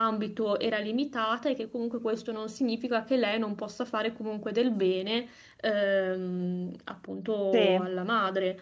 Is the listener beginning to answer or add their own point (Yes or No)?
No